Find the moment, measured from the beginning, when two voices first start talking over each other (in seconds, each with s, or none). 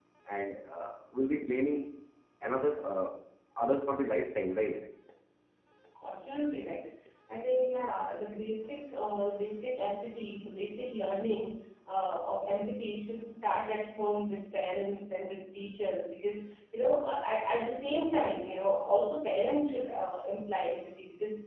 none